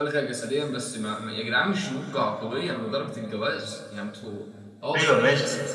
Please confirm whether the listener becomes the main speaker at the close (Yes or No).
Yes